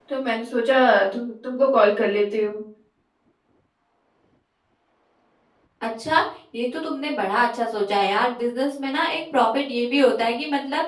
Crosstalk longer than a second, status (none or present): none